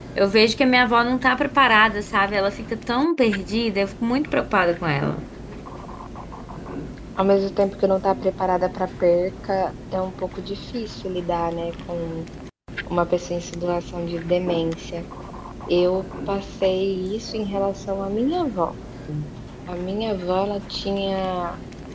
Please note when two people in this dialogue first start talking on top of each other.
none

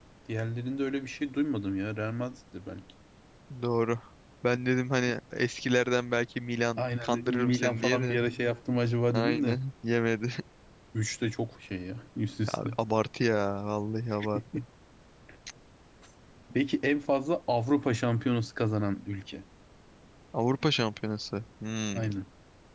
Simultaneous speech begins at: 6.8 s

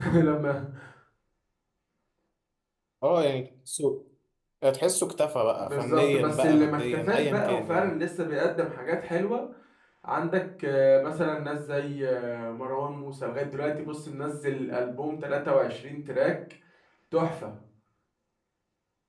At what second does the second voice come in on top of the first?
5.6 s

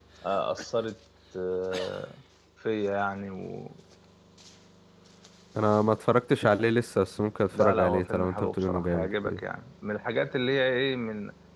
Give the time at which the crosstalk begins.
7.5 s

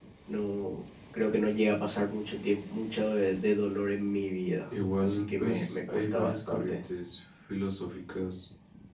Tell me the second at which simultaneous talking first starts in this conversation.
5.0 s

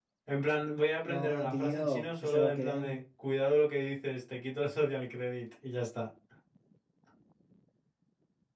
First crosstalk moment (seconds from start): 1.0 s

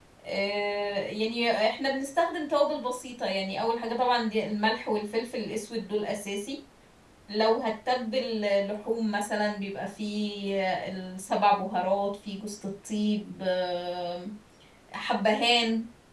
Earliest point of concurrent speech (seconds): none

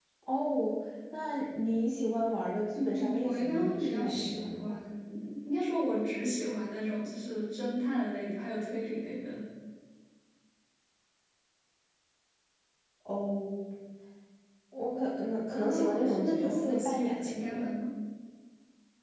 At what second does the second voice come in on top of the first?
2.7 s

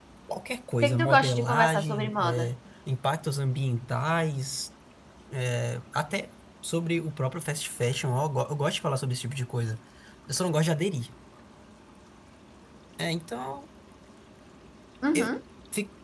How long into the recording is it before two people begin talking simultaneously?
0.8 s

